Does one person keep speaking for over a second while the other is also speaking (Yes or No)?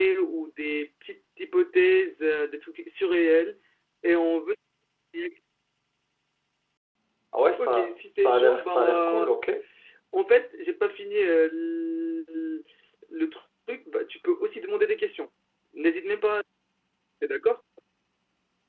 Yes